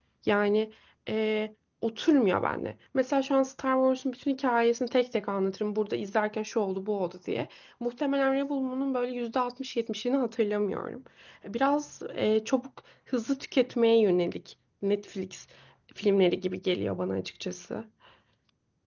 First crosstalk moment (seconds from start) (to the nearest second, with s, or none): none